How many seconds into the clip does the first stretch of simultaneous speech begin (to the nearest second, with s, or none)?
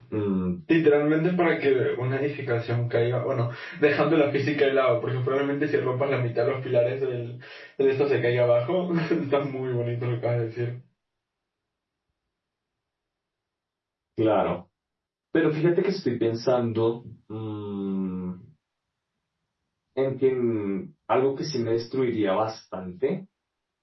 none